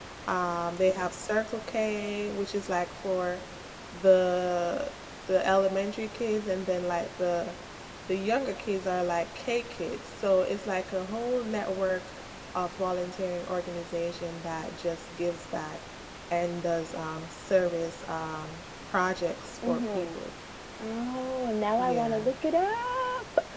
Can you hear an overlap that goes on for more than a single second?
No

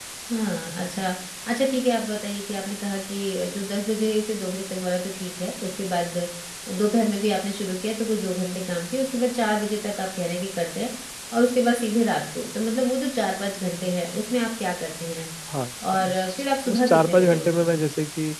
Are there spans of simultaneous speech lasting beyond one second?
Yes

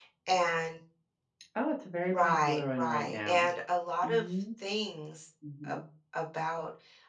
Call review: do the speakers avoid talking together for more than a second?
No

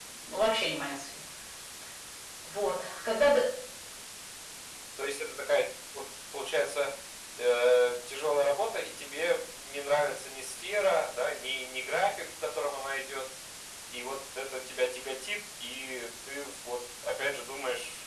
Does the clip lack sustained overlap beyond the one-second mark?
Yes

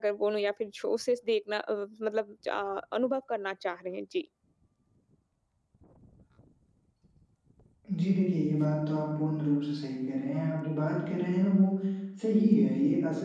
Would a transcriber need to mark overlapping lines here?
No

